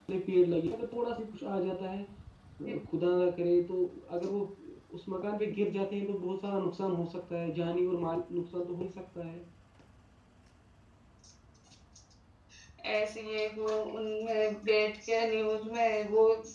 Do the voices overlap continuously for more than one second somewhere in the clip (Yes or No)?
No